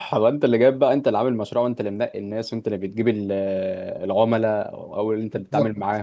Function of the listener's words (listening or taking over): listening